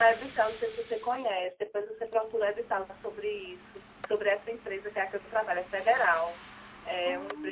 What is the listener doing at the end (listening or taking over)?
listening